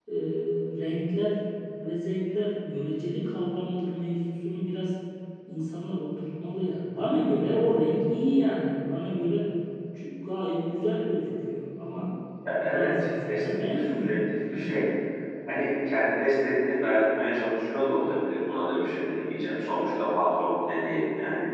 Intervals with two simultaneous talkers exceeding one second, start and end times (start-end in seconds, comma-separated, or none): 12.6-14.2